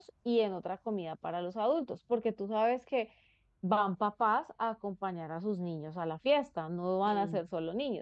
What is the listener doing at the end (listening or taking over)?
listening